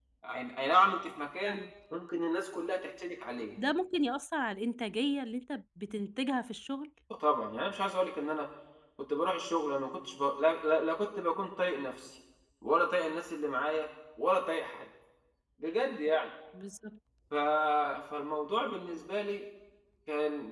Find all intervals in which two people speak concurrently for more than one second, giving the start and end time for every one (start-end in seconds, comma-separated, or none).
none